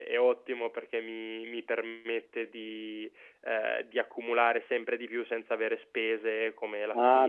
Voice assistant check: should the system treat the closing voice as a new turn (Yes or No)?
Yes